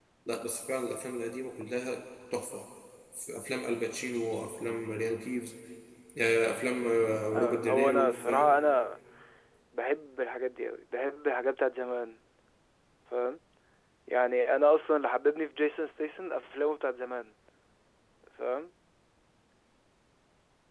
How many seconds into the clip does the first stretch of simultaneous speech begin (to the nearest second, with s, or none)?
7 s